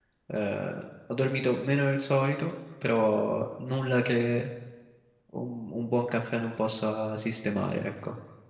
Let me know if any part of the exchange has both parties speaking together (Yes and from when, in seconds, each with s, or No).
No